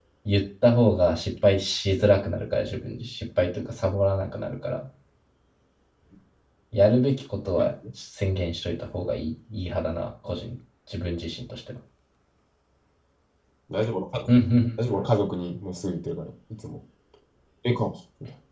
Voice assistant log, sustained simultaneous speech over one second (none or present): none